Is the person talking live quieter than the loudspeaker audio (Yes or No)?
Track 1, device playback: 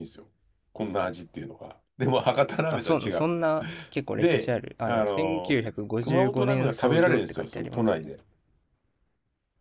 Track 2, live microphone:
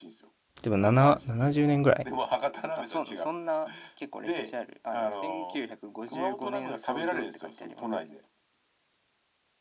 No